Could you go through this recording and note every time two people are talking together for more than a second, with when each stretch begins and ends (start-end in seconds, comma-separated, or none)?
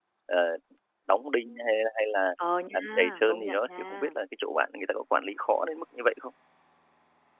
2.7-4.1